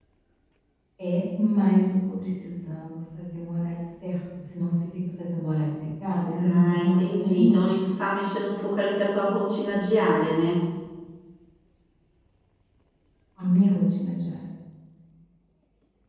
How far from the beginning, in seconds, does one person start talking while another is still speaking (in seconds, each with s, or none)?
6.2 s